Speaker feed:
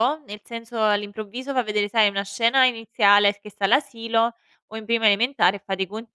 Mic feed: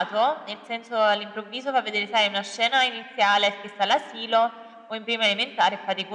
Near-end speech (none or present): none